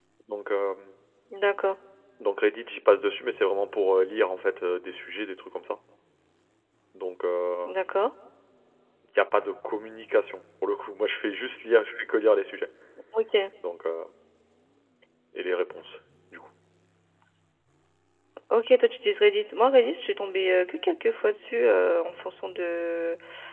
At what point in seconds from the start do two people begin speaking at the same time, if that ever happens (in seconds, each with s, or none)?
none